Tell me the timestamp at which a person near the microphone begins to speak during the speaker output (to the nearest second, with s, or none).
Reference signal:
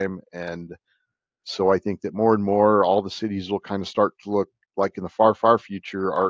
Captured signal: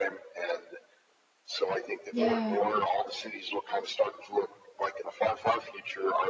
2 s